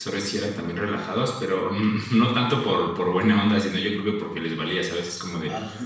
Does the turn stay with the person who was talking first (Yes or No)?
Yes